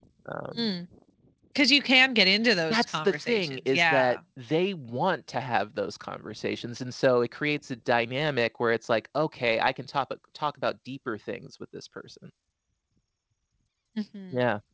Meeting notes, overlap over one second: present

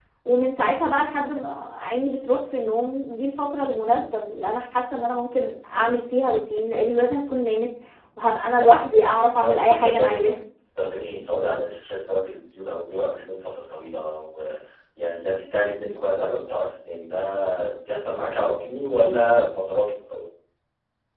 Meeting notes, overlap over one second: present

